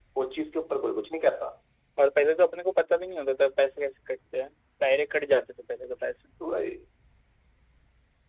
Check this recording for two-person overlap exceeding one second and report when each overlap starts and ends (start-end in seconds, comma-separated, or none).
none